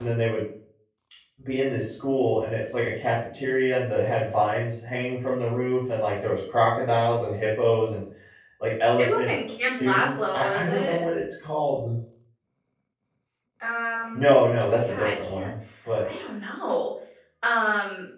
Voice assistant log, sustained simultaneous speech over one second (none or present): present